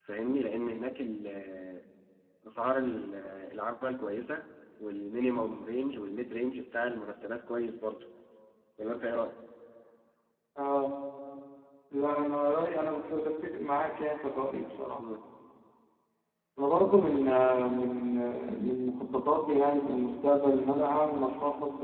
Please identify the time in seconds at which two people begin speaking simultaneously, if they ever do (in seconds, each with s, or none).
none